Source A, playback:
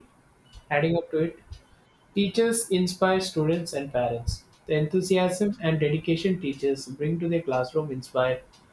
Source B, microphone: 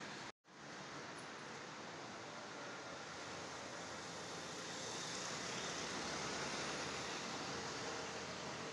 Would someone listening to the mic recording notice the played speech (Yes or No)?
No